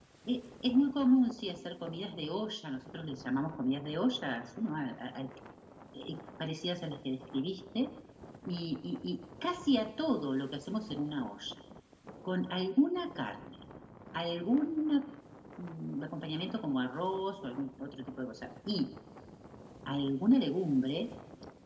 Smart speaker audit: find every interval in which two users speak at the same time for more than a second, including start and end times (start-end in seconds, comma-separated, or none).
none